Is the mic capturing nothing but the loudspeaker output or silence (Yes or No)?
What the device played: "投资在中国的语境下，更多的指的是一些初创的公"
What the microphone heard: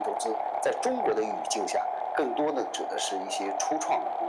Yes